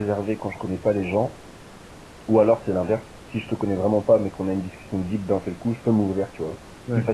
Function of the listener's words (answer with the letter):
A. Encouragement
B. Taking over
A